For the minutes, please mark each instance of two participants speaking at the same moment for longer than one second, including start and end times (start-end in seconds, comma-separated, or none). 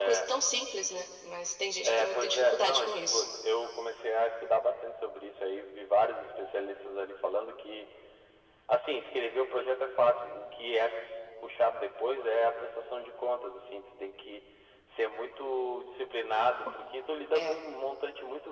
1.8-3.2